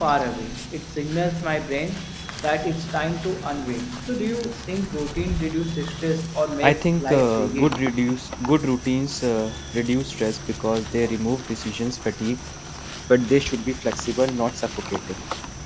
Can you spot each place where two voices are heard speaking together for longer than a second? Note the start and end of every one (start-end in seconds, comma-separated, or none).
6.6-7.8